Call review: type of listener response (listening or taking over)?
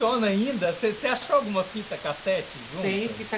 taking over